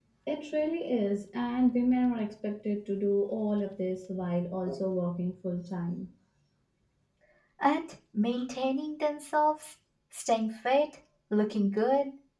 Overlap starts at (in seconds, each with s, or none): none